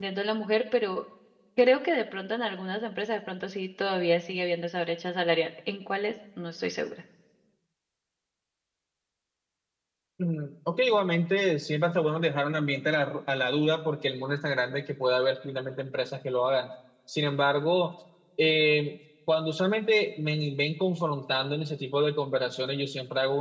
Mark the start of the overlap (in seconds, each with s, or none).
none